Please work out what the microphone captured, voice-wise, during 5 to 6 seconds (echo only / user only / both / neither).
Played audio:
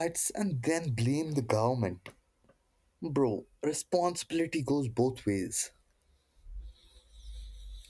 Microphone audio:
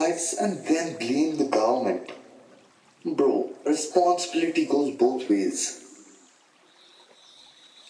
echo only